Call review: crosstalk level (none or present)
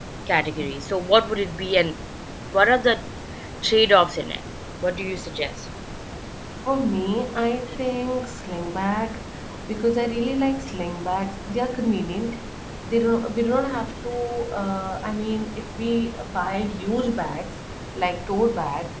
none